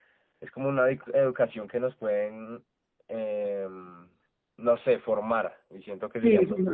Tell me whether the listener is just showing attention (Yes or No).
No